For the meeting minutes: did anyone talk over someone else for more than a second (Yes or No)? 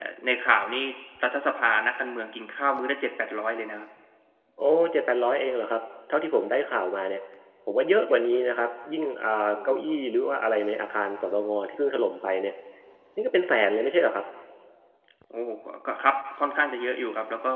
No